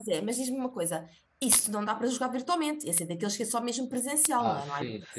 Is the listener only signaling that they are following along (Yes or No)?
No